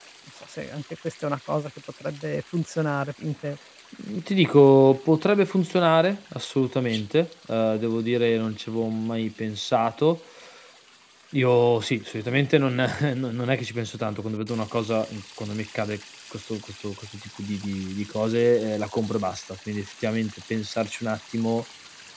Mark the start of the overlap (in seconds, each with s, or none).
none